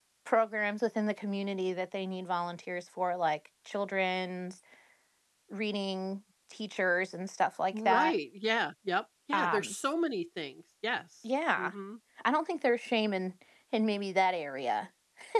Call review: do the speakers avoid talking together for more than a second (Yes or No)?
Yes